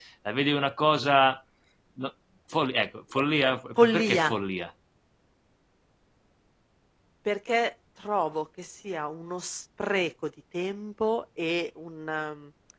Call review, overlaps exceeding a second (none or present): none